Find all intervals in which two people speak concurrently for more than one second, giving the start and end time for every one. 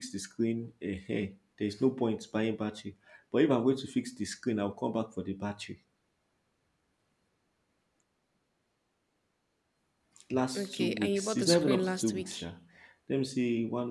10.6-12.3

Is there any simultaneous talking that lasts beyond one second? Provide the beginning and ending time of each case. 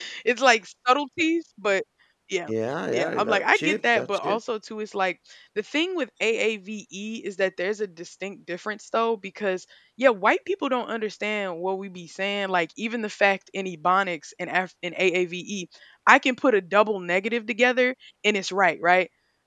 2.9-4.4

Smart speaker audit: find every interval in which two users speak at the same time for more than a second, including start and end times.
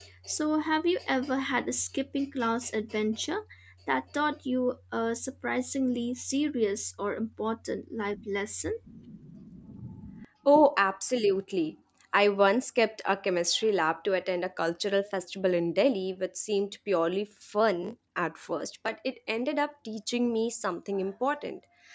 none

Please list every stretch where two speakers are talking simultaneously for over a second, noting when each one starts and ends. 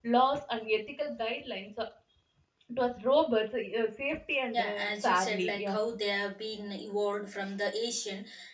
4.6-5.8

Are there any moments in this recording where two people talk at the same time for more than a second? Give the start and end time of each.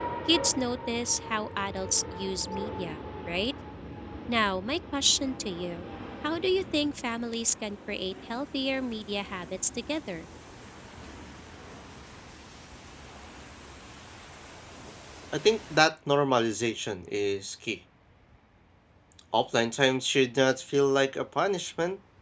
none

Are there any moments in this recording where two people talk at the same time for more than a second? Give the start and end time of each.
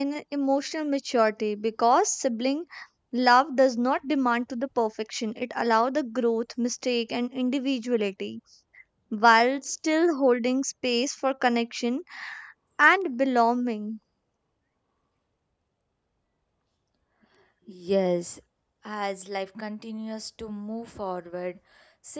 none

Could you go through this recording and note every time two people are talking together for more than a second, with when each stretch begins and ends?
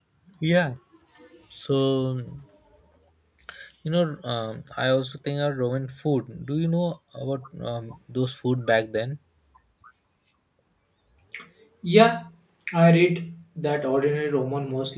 none

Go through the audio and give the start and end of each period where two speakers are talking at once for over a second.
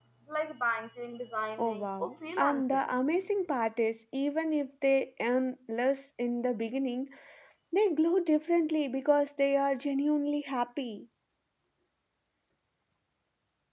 1.6-2.8

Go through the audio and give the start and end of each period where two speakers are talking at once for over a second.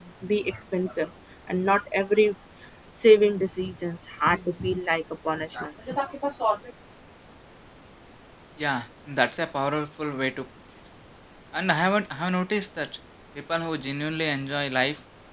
none

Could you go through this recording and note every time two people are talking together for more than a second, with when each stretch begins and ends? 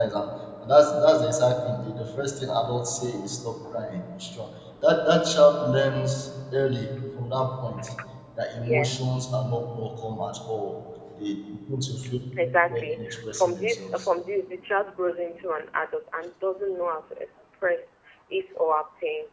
12.7-14.1

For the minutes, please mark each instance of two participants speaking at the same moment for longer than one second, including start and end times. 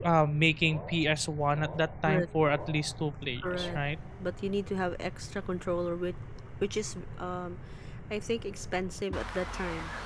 none

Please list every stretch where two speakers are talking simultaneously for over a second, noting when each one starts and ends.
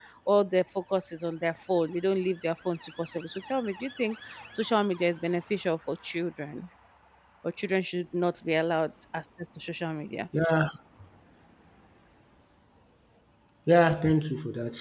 none

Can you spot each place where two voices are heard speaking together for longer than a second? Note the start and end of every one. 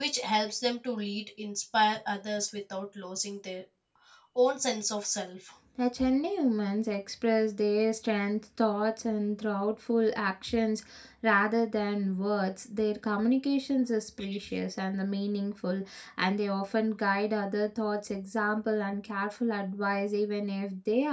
none

